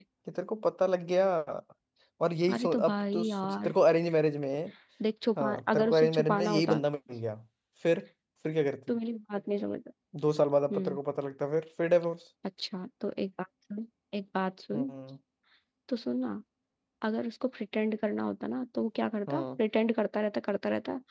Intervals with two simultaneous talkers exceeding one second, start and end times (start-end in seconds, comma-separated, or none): 2.5-3.7, 5.4-6.8